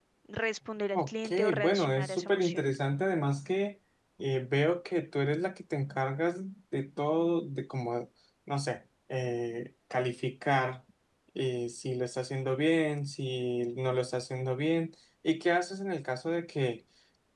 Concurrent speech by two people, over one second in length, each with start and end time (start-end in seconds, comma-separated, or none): 0.9-2.6